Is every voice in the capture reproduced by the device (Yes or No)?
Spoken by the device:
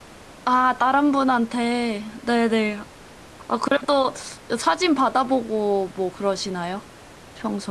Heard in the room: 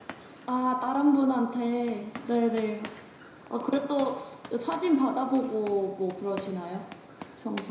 Yes